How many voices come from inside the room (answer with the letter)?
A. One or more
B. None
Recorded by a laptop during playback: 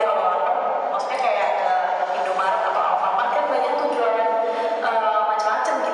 B